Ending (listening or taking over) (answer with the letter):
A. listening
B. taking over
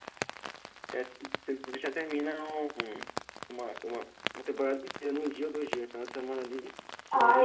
B